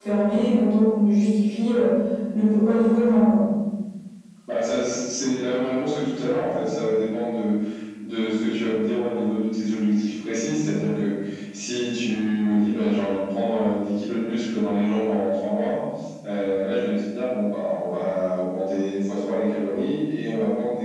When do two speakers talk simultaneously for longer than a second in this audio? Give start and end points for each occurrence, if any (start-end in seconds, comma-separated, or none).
none